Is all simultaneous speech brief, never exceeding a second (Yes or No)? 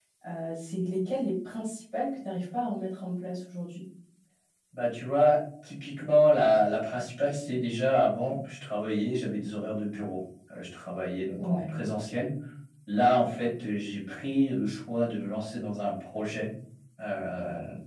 Yes